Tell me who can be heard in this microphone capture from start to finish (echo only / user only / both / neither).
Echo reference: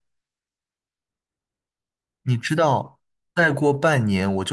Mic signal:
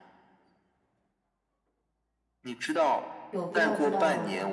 both